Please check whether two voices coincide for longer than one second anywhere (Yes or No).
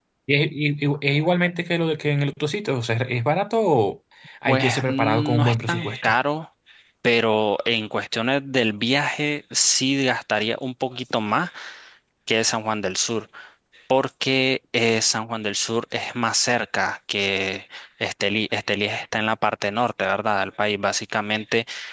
Yes